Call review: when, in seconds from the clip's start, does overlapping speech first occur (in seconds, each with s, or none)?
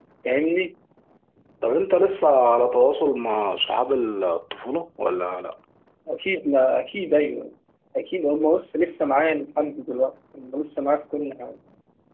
none